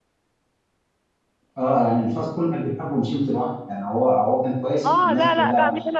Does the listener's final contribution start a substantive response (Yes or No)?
Yes